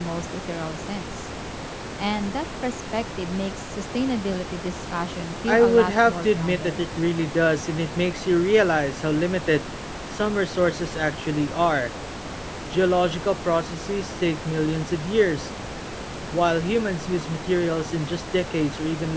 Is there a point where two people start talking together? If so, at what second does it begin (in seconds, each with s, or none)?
5.5 s